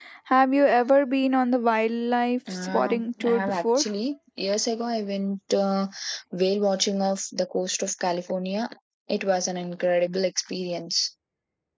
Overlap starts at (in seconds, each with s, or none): 2.5 s